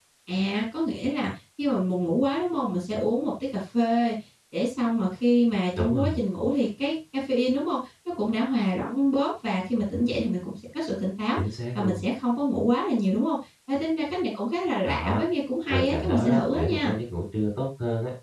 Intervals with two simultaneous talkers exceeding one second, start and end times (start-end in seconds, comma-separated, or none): 15.7-16.9